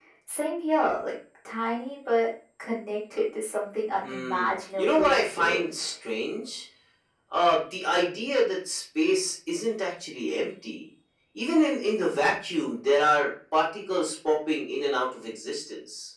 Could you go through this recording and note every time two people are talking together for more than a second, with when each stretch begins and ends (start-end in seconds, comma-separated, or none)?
4.0-5.9